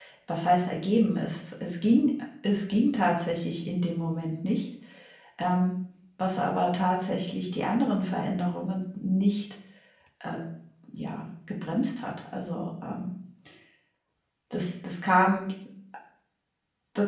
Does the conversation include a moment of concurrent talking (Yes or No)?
No